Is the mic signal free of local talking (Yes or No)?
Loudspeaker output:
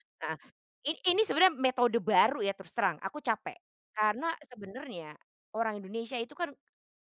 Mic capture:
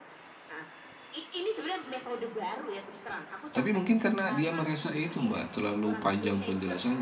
No